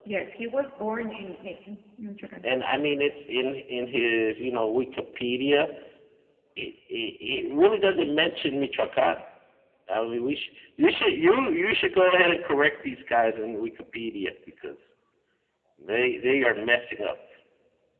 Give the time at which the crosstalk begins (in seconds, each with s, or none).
none